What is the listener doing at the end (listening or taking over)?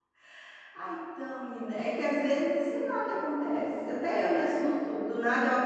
listening